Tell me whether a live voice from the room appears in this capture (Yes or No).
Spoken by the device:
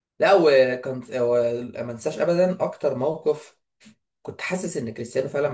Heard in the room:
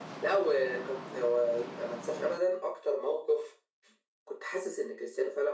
No